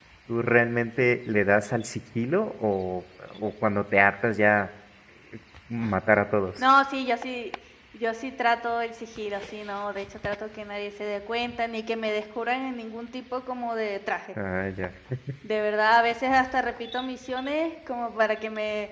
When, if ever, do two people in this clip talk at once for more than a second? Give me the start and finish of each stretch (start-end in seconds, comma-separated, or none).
none